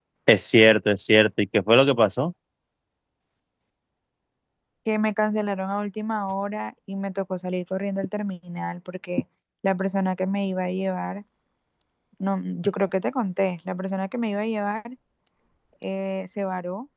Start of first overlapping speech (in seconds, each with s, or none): none